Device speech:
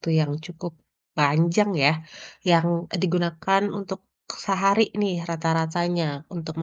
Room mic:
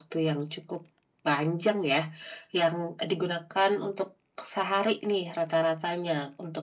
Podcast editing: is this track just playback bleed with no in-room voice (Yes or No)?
Yes